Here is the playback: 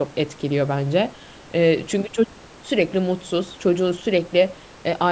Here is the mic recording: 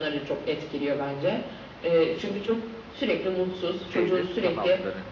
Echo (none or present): present